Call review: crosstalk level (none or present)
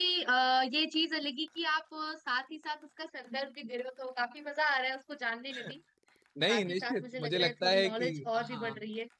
present